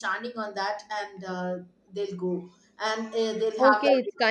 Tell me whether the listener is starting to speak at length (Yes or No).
Yes